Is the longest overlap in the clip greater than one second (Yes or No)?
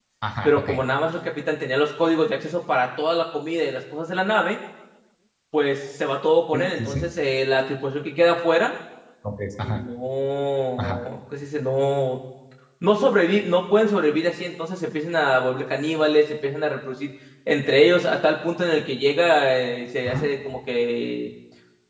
No